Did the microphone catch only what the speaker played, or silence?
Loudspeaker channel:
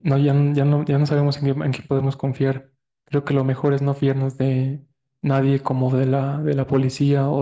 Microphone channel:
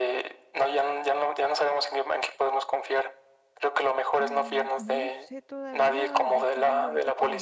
No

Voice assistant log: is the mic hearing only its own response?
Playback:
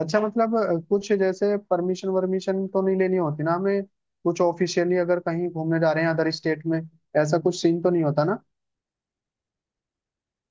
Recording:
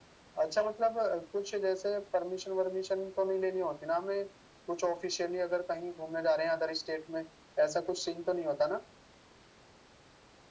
Yes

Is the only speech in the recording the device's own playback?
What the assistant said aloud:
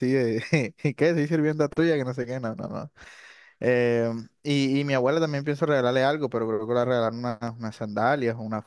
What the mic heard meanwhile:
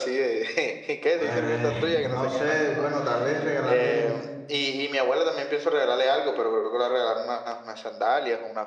No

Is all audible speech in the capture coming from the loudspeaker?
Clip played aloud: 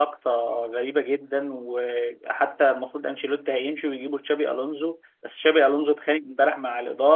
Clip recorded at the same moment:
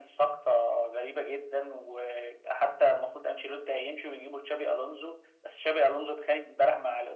Yes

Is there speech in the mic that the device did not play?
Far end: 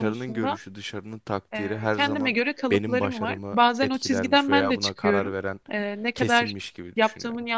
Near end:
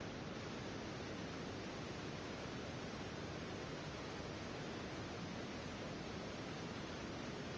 No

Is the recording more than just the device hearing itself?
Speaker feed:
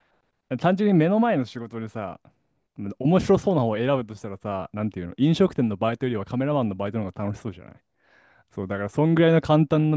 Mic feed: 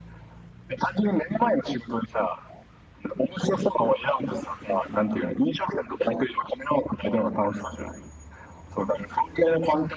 No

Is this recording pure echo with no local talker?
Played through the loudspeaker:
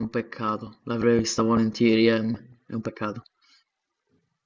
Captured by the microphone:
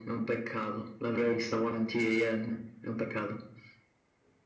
Yes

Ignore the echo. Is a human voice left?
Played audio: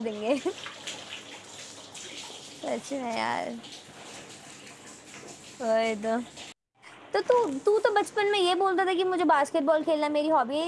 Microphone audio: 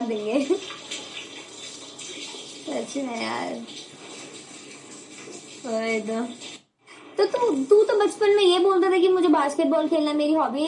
No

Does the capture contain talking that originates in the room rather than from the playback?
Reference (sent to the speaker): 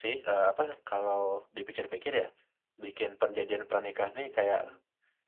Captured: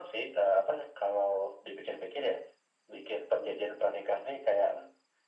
No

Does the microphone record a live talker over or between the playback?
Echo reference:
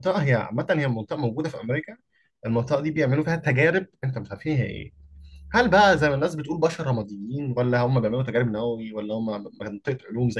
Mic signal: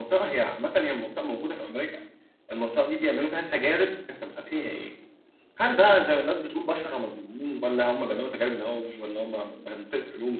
No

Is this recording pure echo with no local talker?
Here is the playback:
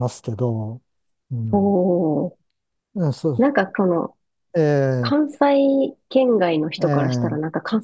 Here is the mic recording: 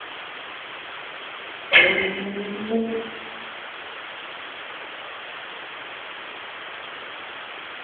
No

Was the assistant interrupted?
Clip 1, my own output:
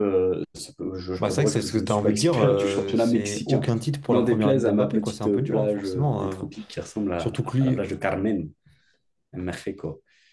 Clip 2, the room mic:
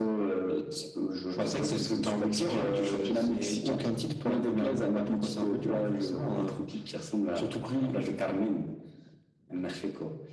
No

